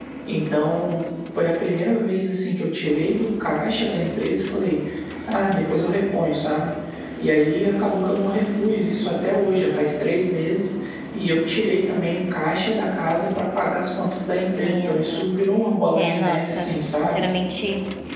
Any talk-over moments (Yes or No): Yes